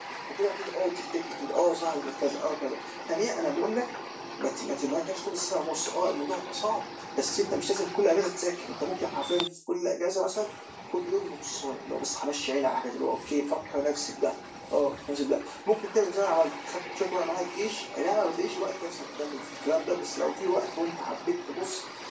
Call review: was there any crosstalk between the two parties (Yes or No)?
No